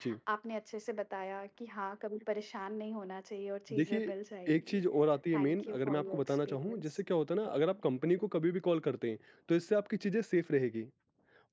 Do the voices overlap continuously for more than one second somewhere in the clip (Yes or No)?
Yes